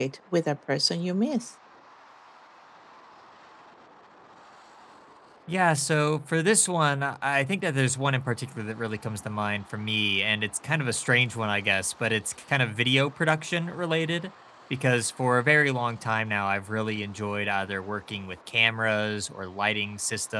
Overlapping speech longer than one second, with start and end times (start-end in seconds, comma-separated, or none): none